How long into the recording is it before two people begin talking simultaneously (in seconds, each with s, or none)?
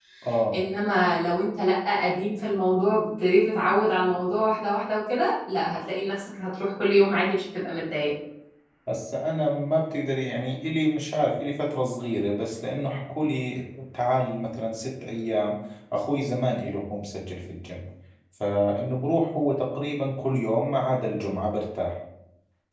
none